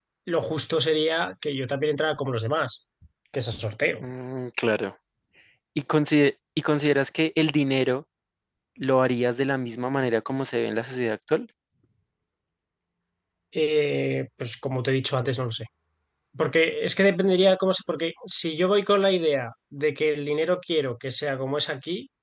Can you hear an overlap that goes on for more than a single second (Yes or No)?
No